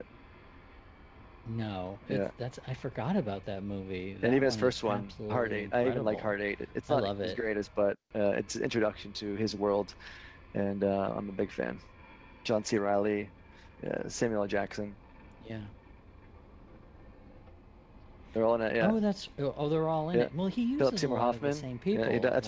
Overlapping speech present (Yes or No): Yes